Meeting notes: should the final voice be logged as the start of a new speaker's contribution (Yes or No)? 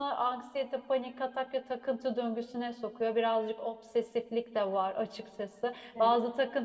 No